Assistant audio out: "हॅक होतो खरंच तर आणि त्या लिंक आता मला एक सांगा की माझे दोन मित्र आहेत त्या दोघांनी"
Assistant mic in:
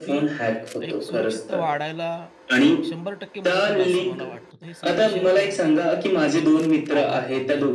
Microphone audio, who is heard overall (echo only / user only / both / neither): both